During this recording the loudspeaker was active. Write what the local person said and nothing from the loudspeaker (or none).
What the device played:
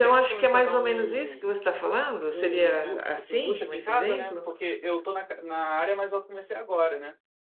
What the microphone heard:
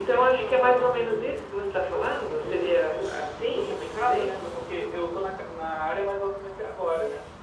none